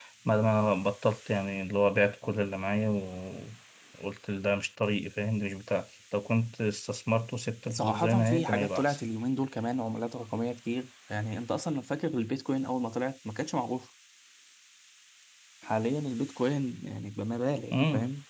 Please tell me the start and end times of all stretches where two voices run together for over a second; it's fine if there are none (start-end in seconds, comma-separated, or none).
7.7-9.0